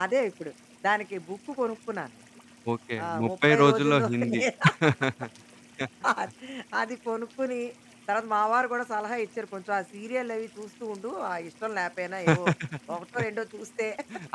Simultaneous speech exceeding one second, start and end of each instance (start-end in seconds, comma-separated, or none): 3.0-4.4